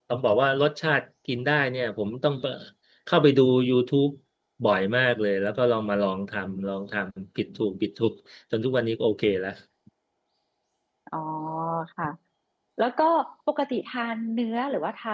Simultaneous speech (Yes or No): No